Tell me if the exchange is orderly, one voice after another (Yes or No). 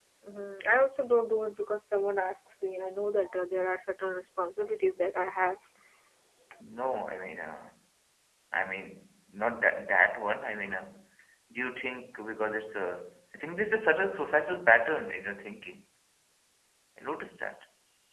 Yes